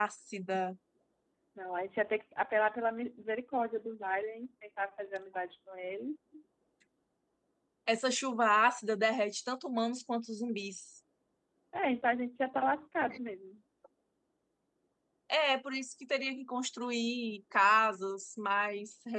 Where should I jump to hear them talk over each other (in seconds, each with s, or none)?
none